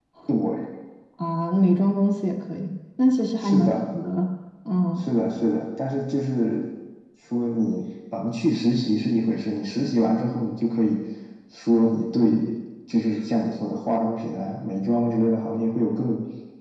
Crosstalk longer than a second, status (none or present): none